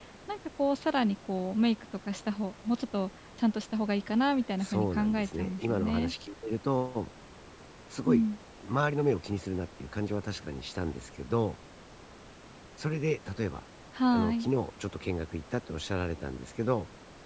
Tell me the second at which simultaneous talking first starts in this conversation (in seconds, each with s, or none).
4.6 s